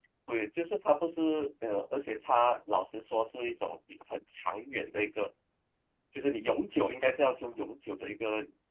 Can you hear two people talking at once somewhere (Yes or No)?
No